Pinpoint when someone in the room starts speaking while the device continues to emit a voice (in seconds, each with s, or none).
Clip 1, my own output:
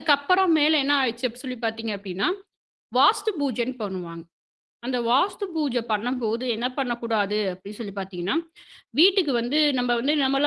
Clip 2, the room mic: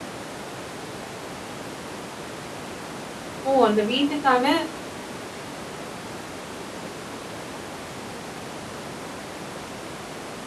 3.5 s